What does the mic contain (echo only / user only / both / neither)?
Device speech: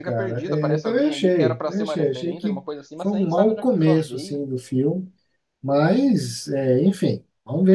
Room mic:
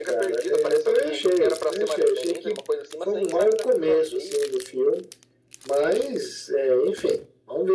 echo only